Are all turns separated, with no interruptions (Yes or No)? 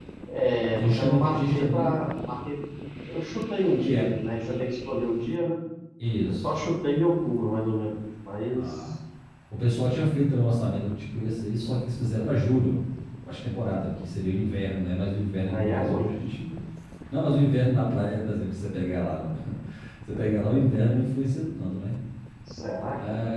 No